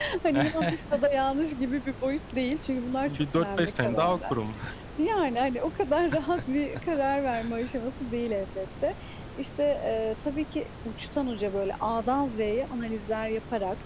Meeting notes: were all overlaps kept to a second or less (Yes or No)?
No